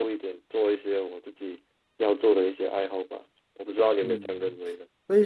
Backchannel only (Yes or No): No